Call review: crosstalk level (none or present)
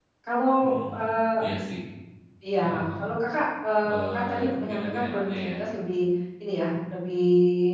present